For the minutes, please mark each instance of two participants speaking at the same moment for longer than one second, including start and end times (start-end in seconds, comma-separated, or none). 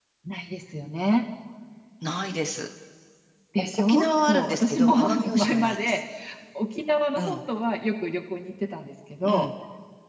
3.6-6.0